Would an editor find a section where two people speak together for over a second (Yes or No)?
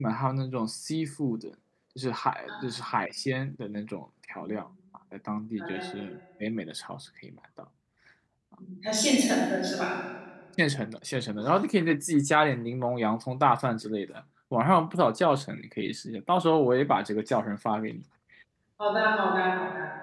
No